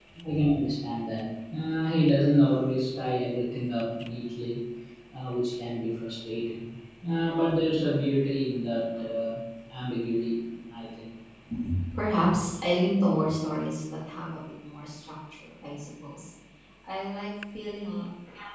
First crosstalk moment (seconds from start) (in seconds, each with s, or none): none